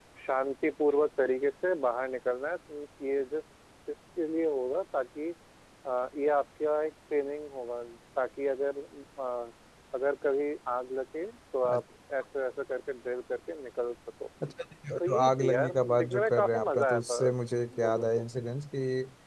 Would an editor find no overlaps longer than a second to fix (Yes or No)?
No